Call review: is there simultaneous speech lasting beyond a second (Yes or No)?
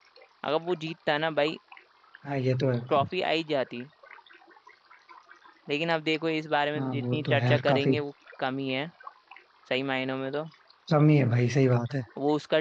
Yes